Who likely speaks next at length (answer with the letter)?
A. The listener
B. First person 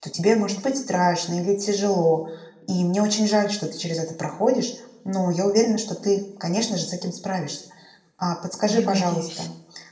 B